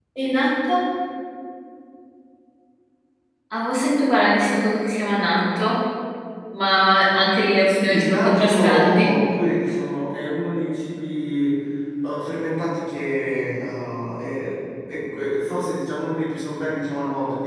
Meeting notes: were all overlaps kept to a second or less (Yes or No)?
No